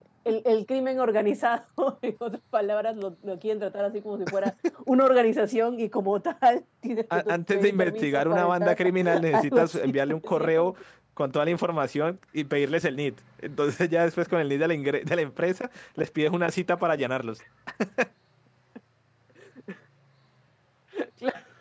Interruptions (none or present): present